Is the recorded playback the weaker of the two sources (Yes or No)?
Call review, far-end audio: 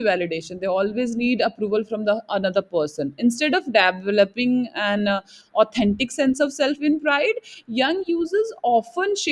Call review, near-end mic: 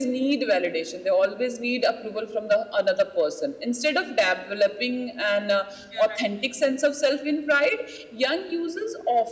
No